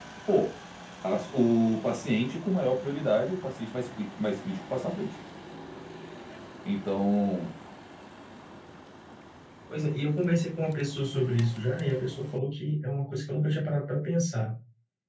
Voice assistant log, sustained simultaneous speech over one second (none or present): none